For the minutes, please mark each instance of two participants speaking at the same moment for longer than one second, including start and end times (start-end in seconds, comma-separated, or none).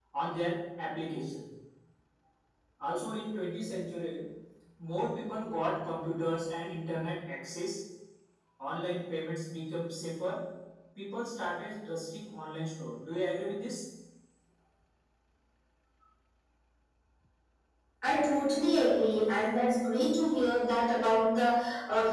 none